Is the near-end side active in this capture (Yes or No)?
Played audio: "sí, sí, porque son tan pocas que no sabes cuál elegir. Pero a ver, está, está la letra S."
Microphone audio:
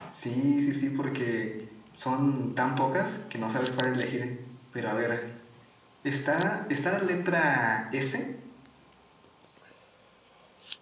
No